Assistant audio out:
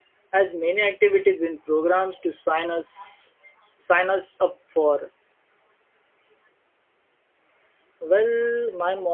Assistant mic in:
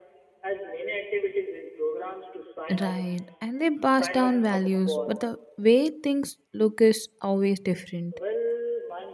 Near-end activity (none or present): present